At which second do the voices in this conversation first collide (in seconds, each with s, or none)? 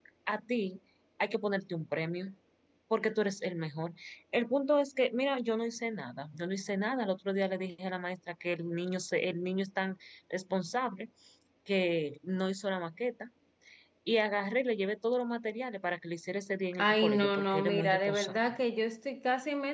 16.7 s